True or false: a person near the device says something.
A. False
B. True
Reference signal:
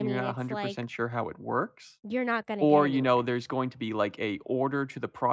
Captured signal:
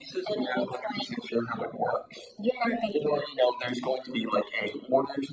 A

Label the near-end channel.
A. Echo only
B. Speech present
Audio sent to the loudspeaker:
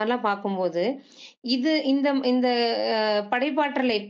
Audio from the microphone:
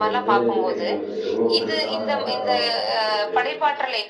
B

